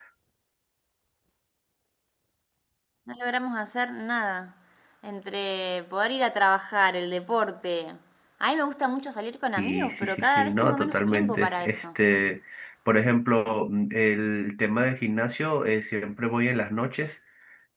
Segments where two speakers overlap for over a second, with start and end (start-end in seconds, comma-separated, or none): 9.6-11.8